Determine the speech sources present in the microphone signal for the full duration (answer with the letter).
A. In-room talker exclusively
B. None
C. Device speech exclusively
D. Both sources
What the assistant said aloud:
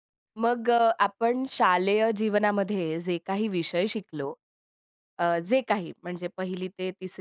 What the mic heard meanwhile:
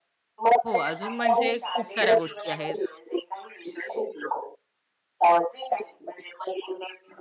D